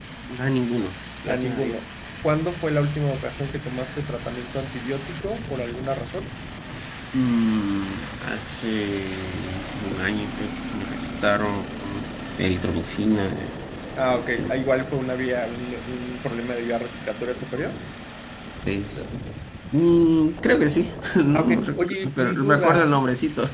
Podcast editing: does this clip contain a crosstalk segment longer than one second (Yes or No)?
Yes